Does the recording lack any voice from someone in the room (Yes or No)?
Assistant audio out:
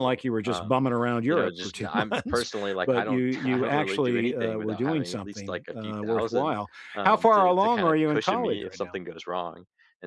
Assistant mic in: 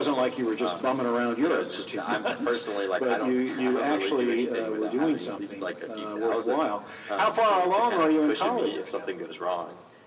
Yes